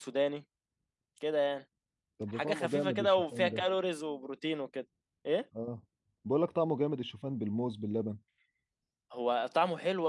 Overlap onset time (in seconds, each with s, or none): 2.3 s